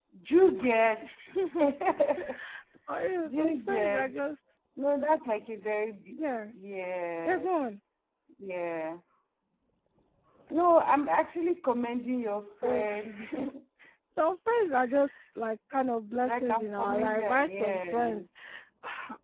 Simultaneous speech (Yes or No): Yes